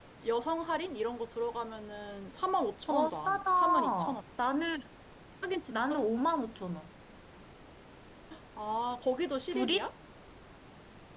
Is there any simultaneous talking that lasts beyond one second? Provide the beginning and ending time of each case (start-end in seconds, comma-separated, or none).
2.9-4.2